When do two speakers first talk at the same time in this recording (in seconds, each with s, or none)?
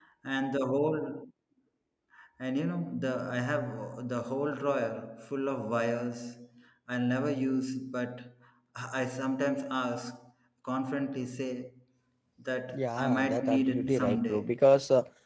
12.7 s